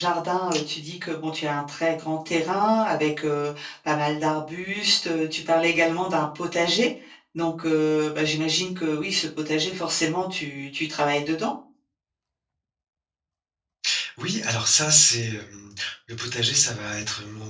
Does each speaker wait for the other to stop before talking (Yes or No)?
Yes